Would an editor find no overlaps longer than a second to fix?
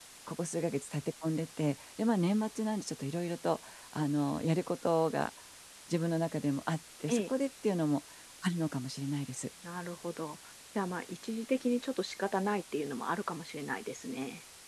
Yes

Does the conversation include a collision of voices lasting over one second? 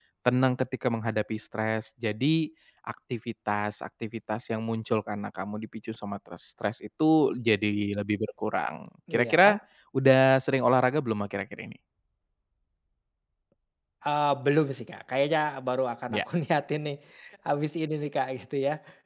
No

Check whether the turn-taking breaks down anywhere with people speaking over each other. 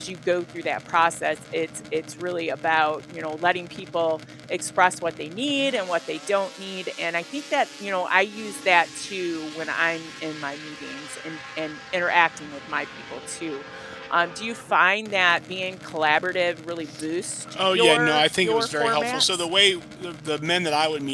Yes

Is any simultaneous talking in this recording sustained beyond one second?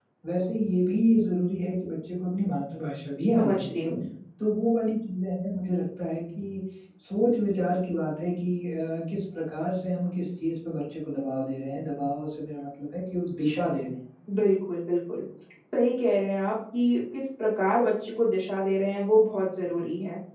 No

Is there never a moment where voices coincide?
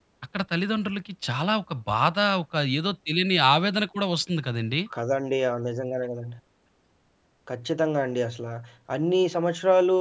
Yes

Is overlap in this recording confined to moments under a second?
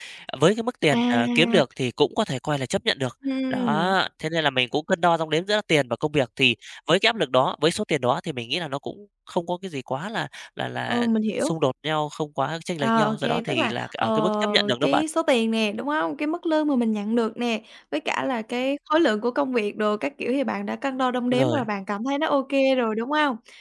No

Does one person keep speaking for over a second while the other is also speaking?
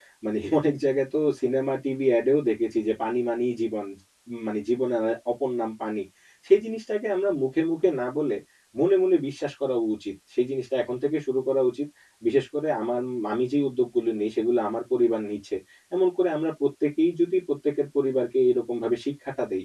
No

